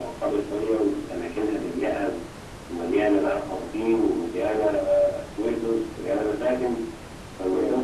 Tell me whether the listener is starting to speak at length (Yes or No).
No